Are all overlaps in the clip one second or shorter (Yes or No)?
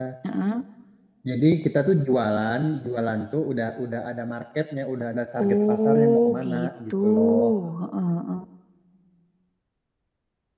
No